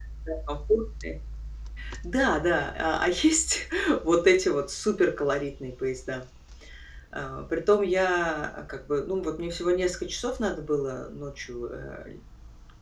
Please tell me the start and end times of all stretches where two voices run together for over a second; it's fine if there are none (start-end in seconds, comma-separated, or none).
none